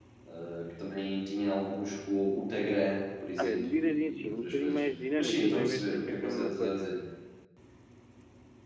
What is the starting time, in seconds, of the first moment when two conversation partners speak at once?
3.4 s

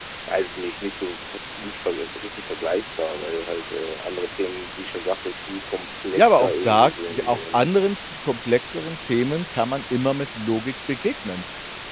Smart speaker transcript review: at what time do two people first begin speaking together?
6.2 s

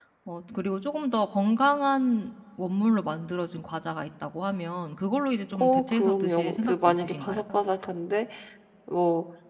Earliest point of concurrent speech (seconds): 5.5 s

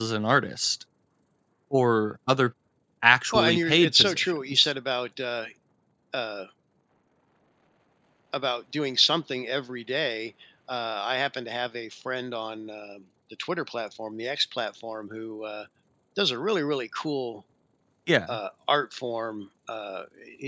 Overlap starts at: 3.3 s

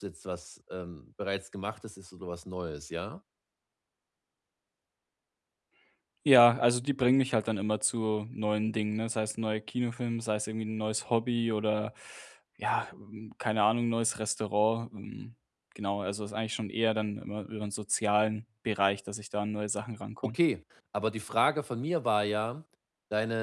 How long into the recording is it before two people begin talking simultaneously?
none

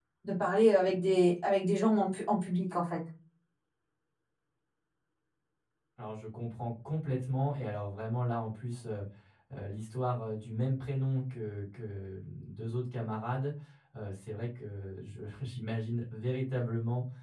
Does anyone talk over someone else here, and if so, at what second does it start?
none

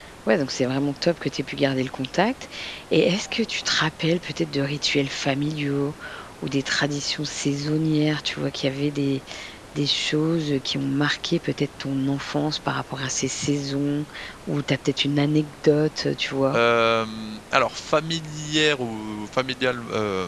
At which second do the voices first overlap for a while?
none

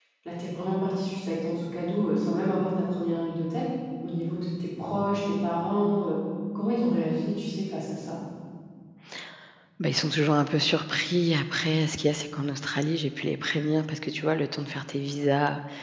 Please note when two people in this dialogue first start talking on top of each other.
none

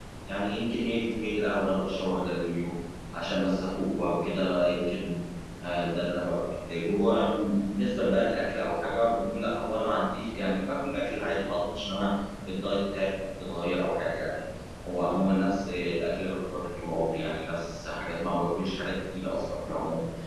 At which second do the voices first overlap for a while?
none

